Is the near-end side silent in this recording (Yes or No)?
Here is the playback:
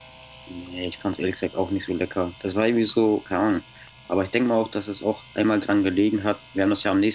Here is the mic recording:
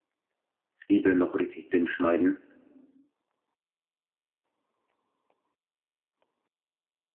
No